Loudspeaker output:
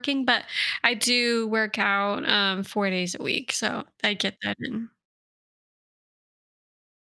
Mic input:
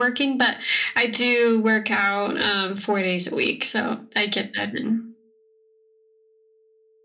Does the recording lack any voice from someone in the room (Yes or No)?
Yes